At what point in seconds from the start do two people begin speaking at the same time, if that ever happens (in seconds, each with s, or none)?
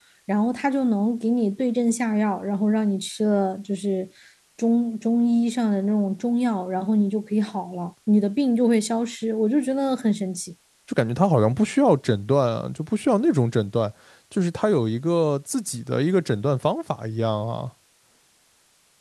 none